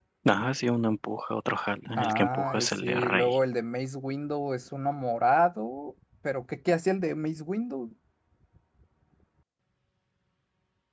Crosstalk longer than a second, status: present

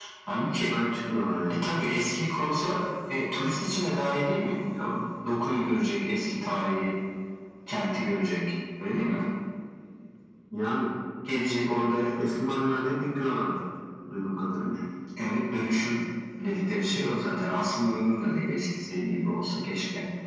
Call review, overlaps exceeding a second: none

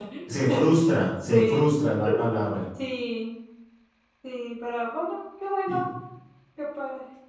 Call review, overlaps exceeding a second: none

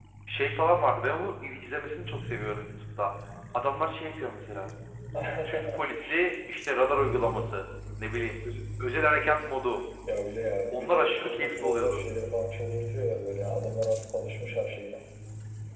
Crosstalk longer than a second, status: present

